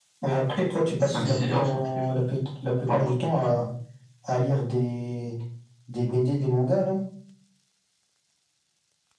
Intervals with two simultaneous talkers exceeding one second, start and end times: 1.0-2.3

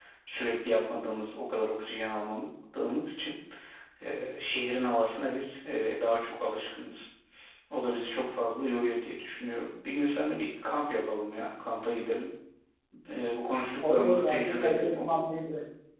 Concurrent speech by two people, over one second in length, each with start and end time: 13.8-15.3

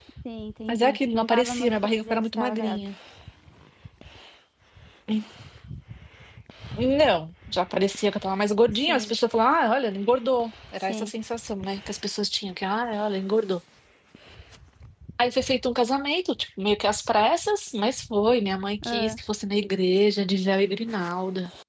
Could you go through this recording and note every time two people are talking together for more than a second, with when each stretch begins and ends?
0.7-2.9

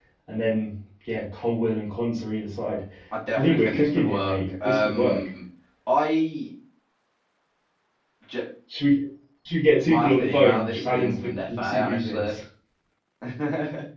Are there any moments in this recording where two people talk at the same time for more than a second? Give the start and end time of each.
3.4-5.3, 9.9-12.3

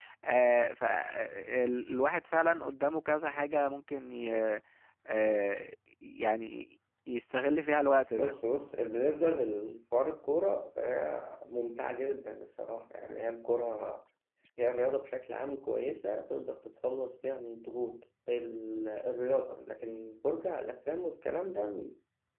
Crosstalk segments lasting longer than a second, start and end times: none

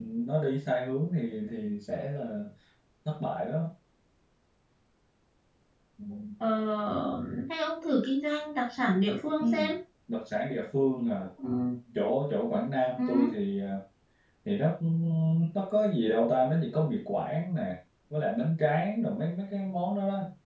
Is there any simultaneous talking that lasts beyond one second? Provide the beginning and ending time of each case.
none

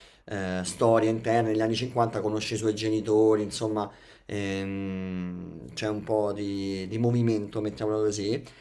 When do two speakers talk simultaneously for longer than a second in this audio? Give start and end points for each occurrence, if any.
none

